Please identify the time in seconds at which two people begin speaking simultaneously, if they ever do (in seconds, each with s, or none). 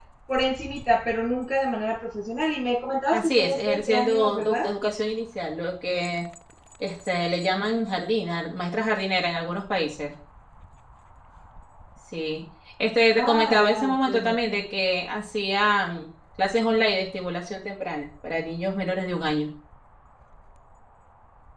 3.1 s